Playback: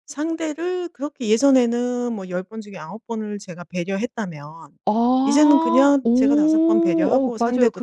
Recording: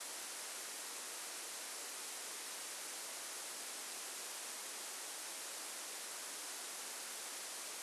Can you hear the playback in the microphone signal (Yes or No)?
No